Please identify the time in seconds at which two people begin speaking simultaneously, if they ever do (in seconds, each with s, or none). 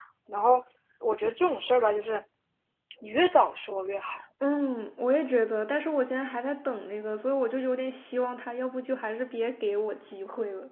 none